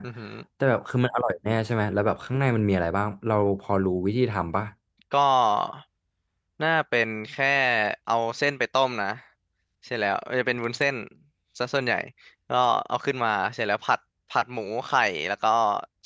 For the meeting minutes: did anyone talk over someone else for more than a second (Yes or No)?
No